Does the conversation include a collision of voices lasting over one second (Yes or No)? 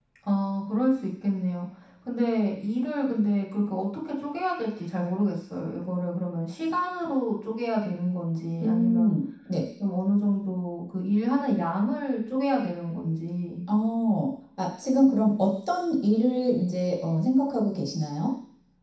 No